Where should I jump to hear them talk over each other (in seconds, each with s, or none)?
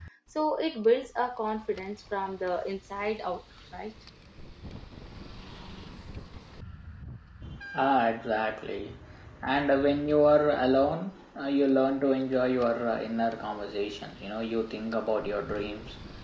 none